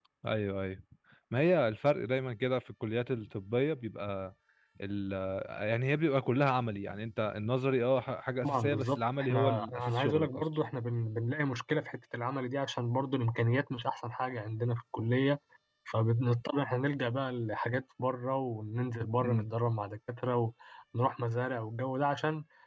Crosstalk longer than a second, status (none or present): present